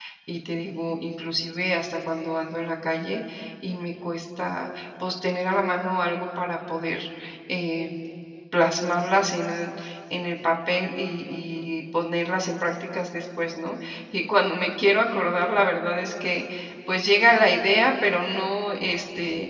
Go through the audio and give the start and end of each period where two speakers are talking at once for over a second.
none

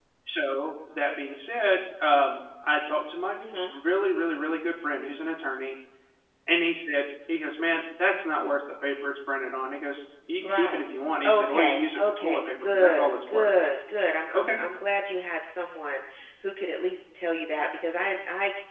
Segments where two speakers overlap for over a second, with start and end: 11.2-13.5

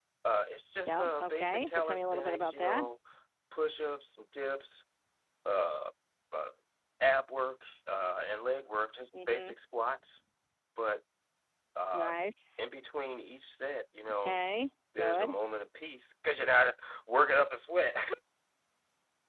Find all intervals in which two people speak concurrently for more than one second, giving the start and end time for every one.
0.9-2.8

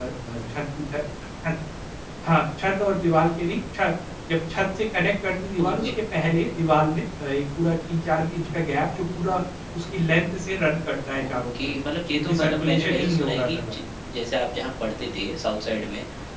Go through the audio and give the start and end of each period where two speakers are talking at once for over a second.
12.2-13.8

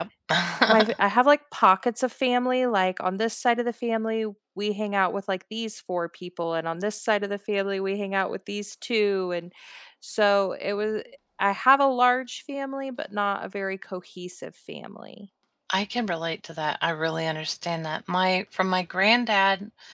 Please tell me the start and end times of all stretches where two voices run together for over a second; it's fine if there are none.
none

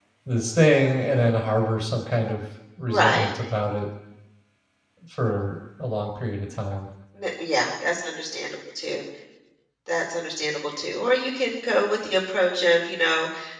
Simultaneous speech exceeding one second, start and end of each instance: none

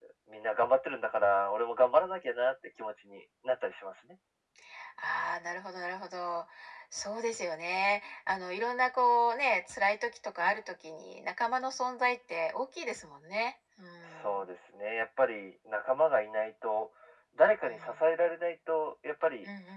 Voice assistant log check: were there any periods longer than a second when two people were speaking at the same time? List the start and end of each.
none

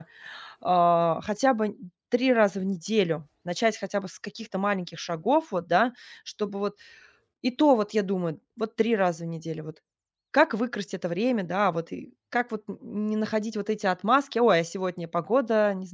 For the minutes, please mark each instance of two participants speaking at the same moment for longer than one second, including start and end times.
none

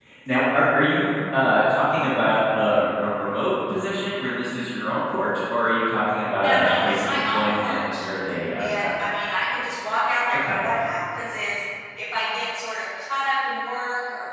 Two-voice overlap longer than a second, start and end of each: 6.4-8.0

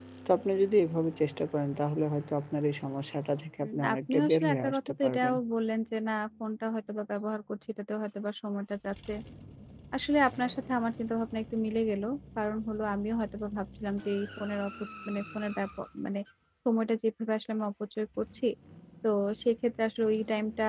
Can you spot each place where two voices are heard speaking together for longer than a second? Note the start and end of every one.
3.6-5.3

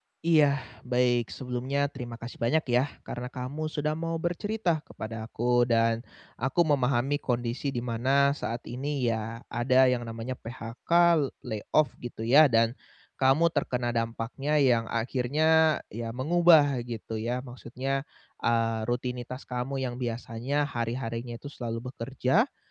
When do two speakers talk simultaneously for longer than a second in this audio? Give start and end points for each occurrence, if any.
none

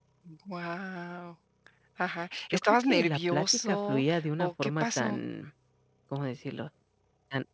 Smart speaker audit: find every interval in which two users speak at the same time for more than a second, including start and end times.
2.5-5.2

